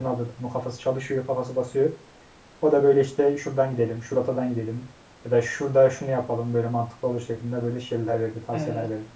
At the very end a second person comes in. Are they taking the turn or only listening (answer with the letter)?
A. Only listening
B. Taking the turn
B